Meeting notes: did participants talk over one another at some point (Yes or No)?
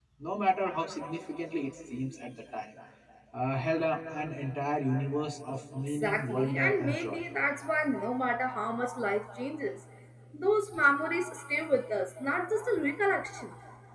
Yes